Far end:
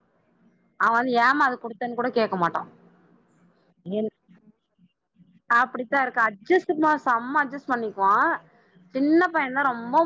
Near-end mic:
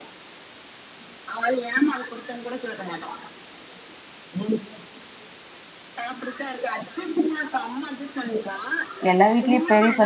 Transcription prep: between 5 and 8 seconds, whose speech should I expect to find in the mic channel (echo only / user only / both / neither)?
echo only